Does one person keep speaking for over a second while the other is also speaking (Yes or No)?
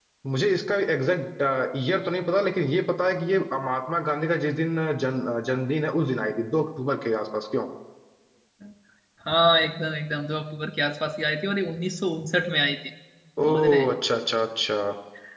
No